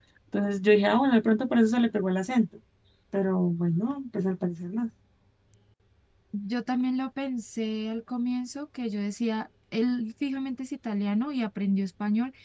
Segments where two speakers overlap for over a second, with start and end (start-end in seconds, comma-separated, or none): none